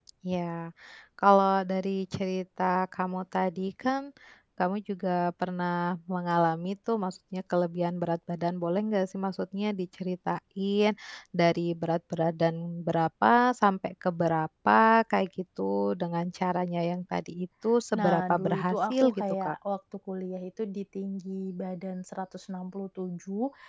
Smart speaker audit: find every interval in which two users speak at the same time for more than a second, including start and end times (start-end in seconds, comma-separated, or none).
18.0-19.6